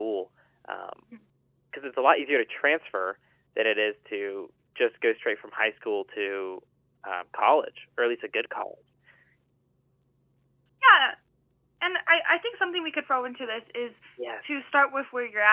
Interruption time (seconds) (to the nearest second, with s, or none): none